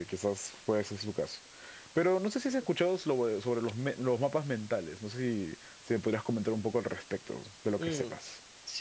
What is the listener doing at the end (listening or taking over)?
taking over